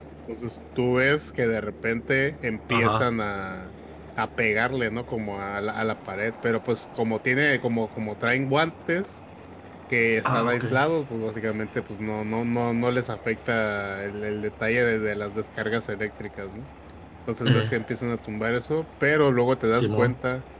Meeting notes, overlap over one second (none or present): none